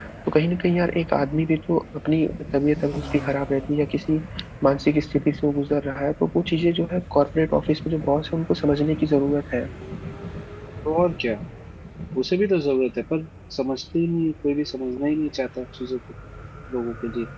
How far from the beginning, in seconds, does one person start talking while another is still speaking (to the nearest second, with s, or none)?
none